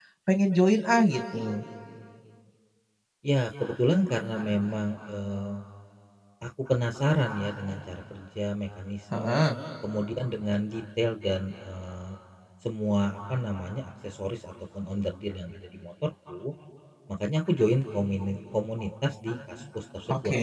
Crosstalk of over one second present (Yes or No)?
No